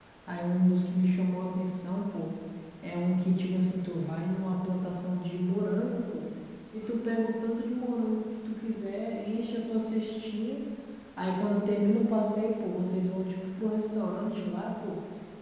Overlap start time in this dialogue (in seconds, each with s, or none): none